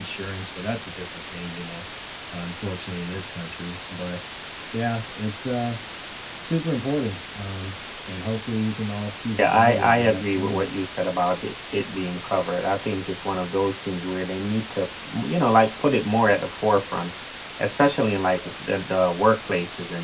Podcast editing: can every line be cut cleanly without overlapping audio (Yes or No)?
No